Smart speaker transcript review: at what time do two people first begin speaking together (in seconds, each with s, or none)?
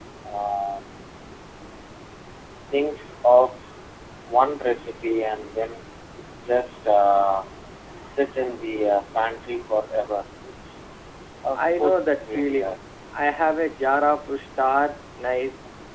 11.6 s